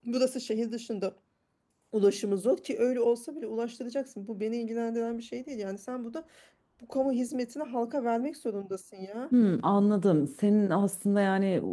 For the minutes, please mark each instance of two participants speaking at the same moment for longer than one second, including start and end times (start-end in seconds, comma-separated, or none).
none